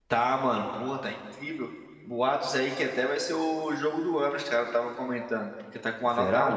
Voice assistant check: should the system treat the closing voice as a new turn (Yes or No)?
No